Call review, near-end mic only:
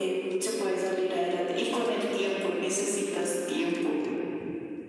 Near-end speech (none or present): none